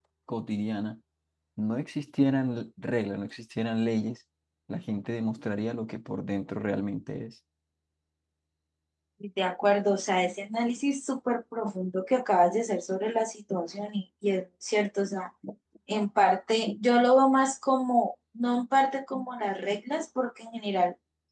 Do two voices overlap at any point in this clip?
No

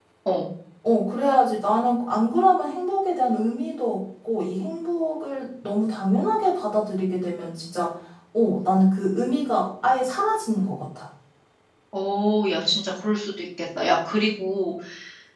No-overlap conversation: Yes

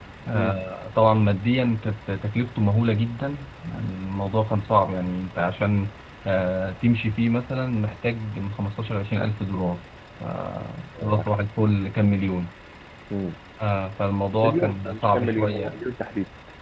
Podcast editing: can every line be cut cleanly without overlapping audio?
No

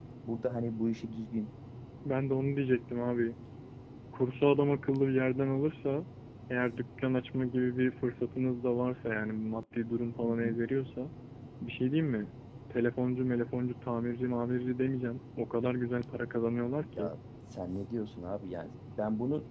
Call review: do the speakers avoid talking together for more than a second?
Yes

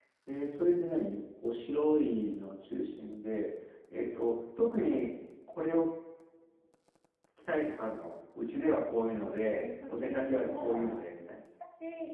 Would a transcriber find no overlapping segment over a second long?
No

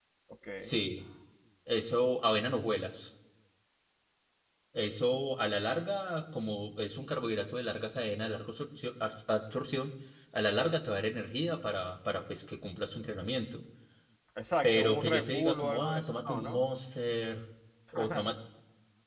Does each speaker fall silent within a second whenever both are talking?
No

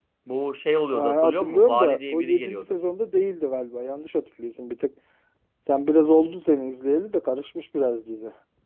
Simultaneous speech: Yes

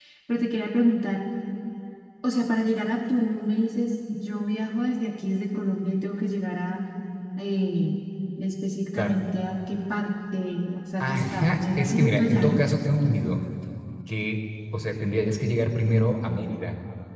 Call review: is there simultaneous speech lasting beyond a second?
Yes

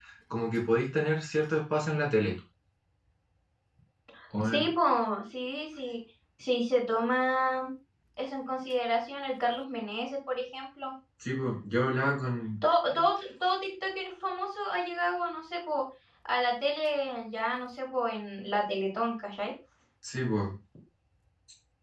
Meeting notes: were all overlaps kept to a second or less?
Yes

